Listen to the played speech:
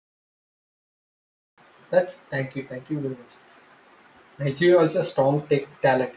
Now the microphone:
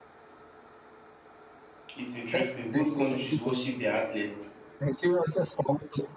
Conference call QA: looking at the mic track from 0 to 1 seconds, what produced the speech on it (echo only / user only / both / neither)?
neither